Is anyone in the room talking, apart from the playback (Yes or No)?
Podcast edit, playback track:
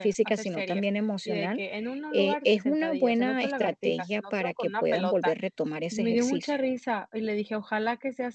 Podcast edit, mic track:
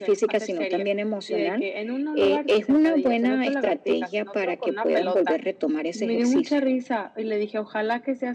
No